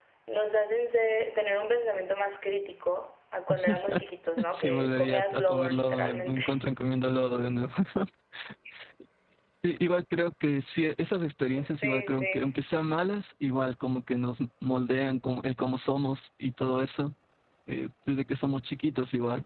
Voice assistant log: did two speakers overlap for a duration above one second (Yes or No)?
Yes